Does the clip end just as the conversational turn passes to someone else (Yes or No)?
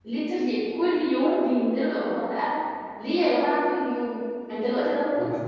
No